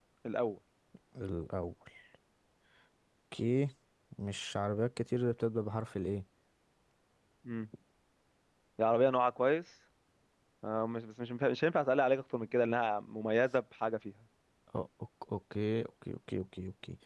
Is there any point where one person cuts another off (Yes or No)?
No